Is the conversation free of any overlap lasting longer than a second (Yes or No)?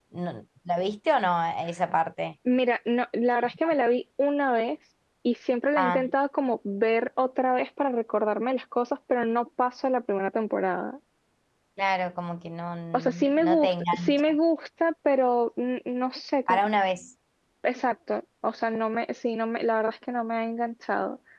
No